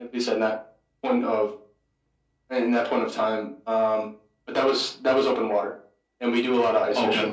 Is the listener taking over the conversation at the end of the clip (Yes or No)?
No